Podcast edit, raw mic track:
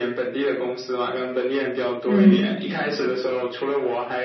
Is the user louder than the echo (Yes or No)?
Yes